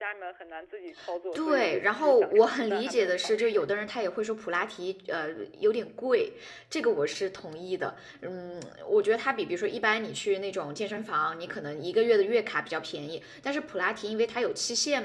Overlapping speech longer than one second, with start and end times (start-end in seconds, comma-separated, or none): 1.4-3.6